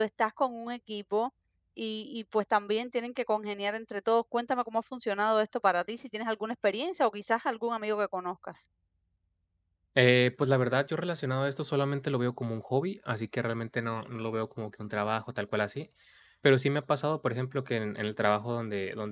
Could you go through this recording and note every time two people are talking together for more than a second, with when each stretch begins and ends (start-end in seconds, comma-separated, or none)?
none